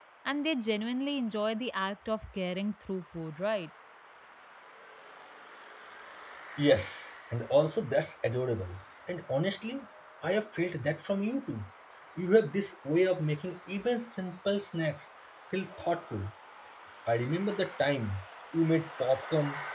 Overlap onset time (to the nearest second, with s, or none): none